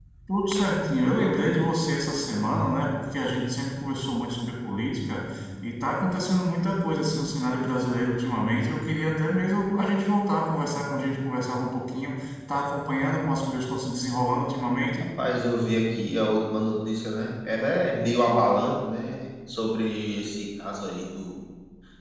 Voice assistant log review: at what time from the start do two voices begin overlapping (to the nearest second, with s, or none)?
none